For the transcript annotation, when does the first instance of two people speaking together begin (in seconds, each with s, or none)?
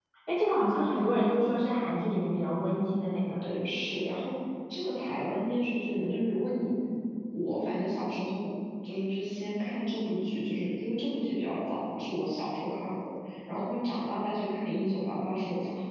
none